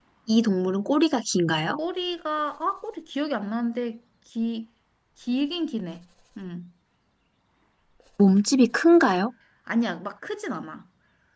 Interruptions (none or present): none